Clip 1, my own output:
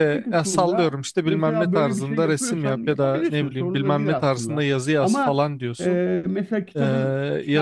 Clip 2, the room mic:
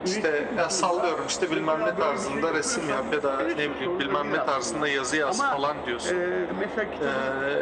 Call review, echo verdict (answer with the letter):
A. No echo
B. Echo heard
B